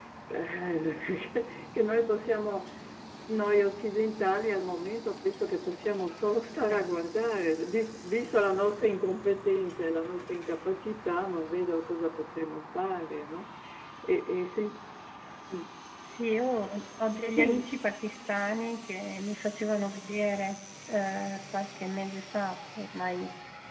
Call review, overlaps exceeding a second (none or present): none